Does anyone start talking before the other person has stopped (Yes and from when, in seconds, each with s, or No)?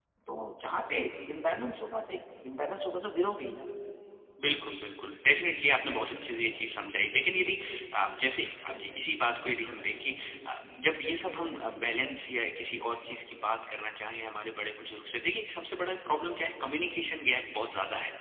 No